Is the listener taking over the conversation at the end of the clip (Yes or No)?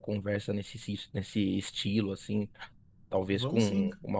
No